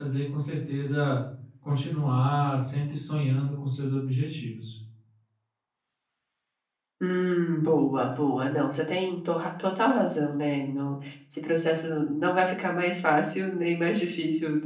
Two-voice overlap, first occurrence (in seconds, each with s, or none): none